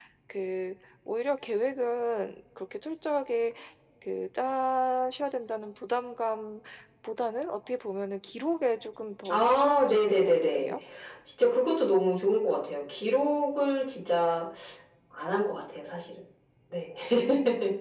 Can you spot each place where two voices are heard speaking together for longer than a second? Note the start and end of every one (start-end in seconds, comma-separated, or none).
9.3-10.7